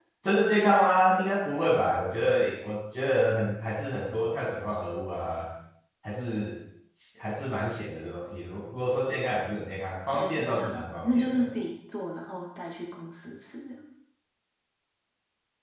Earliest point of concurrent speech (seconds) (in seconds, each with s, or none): 10.1 s